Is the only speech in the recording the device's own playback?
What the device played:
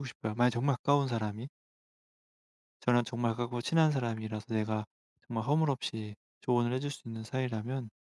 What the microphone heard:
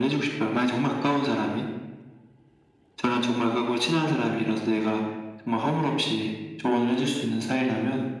Yes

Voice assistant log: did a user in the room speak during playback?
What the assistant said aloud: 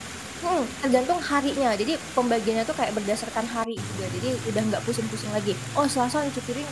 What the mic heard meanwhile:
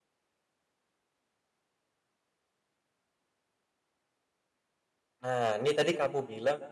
Yes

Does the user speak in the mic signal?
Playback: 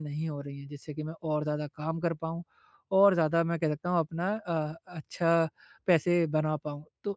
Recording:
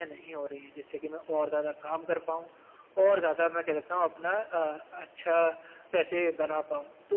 No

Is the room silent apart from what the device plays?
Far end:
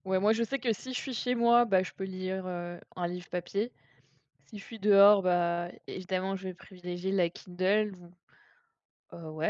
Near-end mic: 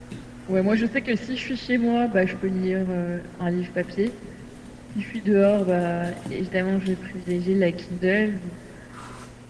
Yes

